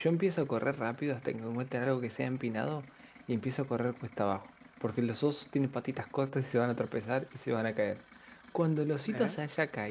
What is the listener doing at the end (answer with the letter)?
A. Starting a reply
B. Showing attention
B